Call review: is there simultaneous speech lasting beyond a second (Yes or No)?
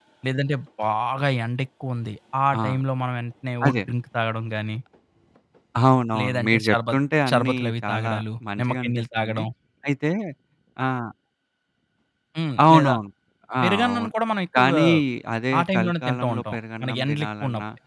Yes